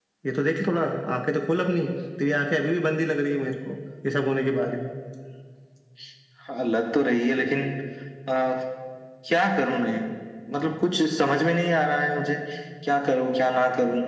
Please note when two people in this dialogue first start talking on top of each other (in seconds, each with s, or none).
none